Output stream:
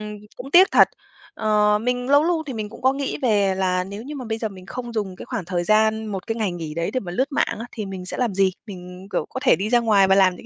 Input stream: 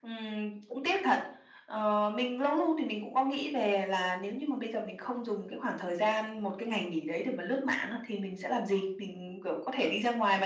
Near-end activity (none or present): none